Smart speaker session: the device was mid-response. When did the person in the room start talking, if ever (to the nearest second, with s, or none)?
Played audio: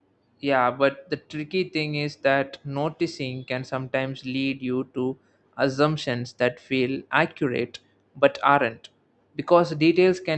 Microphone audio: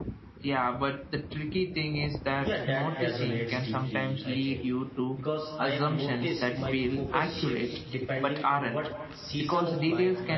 2 s